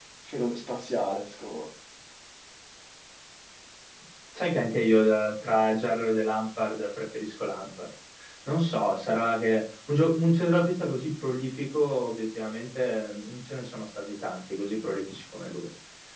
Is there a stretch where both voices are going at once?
No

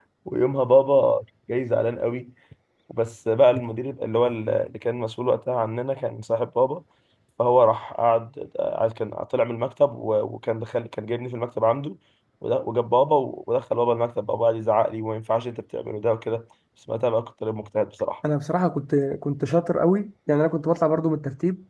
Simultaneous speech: No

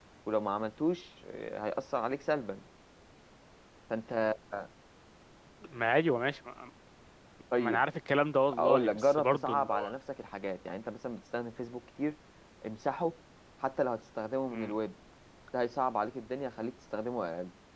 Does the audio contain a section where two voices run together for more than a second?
Yes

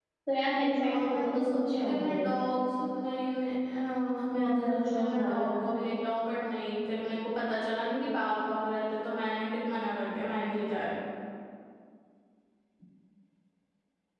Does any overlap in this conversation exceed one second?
Yes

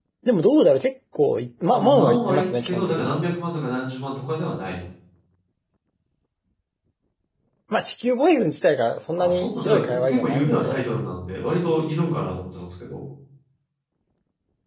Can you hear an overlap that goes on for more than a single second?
Yes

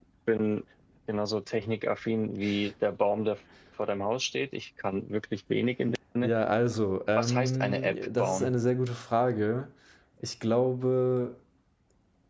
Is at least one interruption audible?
Yes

